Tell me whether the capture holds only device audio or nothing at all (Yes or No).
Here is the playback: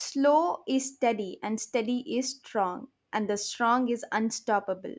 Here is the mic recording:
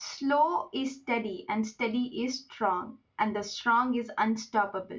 Yes